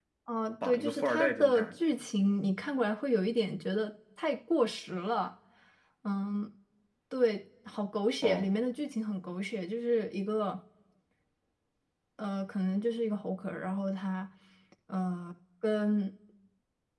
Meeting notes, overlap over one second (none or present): present